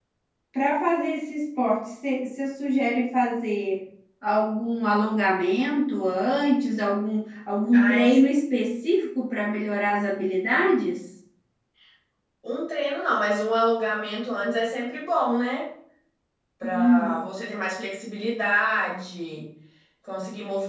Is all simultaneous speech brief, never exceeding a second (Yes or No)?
Yes